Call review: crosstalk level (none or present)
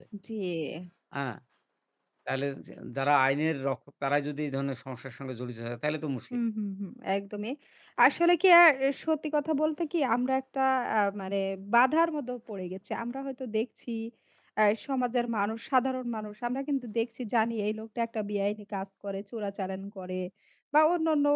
none